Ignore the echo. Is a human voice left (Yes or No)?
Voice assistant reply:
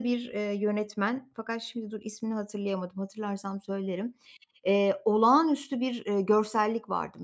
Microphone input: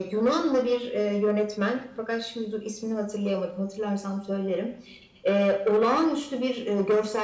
No